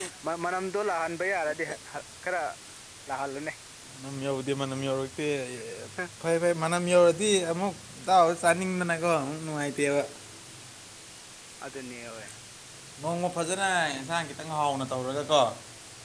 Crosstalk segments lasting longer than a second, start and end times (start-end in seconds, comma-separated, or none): none